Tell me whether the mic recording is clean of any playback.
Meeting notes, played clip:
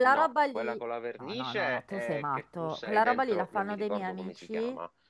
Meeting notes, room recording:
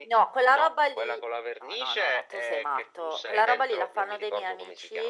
No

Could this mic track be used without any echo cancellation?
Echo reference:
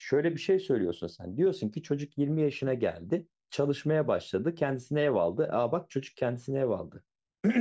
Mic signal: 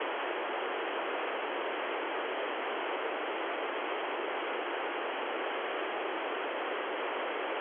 Yes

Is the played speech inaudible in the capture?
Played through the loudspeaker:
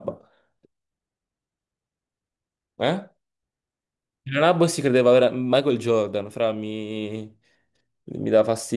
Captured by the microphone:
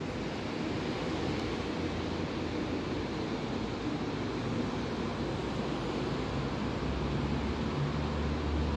Yes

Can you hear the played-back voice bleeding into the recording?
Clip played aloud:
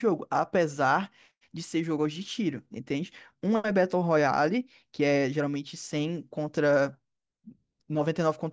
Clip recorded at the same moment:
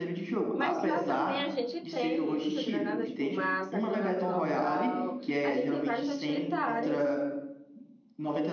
Yes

